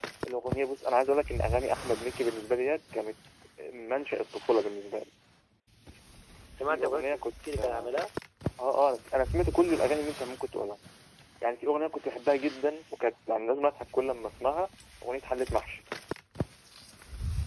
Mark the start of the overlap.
6.7 s

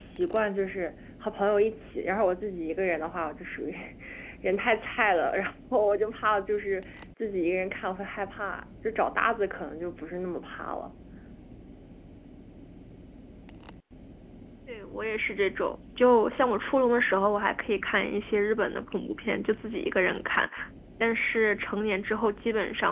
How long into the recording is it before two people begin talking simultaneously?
none

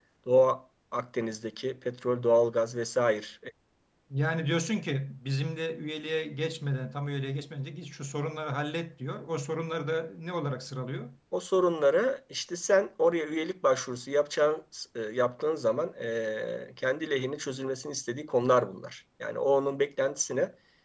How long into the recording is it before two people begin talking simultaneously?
none

